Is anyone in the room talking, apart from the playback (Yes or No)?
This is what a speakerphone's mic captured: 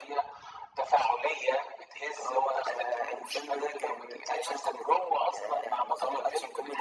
No